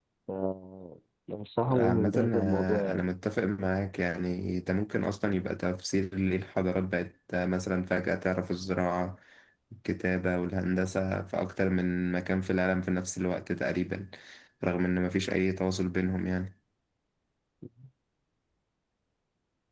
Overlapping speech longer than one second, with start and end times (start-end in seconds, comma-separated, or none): 1.7-3.0